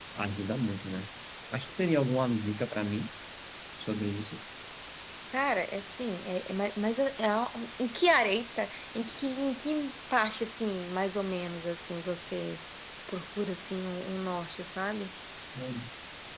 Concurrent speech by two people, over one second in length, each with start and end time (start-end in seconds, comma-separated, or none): none